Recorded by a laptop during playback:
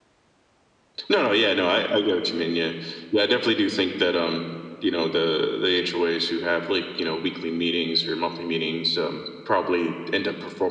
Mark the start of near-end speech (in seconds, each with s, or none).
none